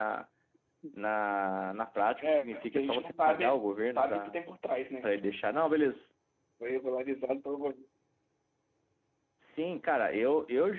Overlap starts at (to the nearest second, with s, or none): 2 s